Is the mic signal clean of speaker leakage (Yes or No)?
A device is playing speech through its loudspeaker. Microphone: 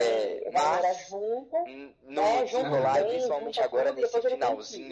No